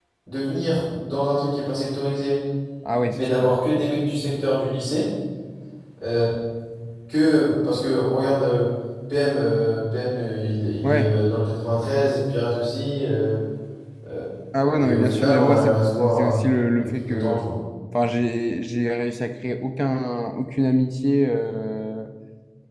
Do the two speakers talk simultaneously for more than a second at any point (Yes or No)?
Yes